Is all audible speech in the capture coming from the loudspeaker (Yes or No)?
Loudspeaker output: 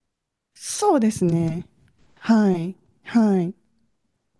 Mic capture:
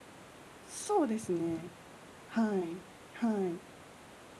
Yes